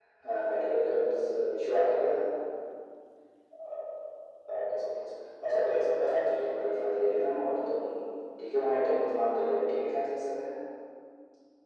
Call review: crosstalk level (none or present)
present